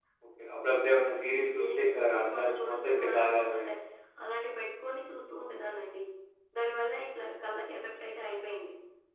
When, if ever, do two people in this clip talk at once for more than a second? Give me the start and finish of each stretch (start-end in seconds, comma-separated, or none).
1.6-3.6